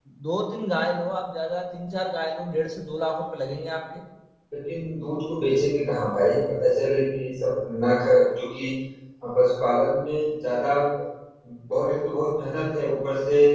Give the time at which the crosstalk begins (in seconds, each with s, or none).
none